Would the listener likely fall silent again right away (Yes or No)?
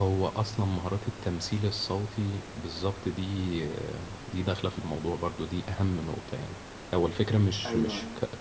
Yes